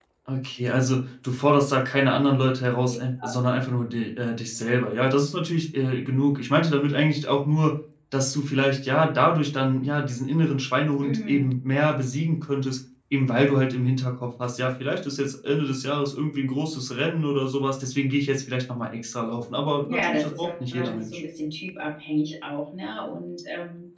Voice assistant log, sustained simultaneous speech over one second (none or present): present